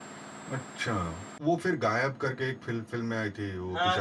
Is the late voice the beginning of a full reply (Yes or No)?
Yes